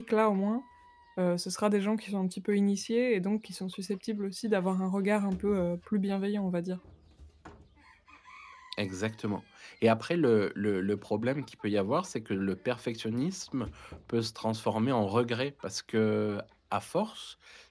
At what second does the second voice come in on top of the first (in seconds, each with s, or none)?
none